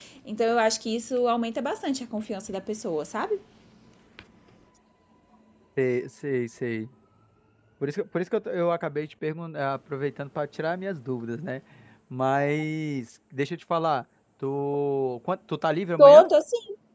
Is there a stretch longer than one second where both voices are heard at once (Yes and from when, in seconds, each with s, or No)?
No